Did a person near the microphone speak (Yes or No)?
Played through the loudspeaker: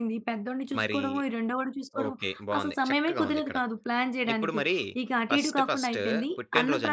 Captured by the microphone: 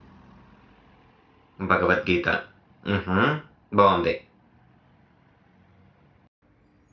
Yes